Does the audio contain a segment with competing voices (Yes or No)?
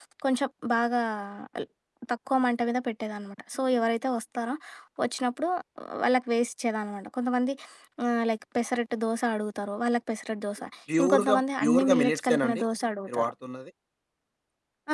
Yes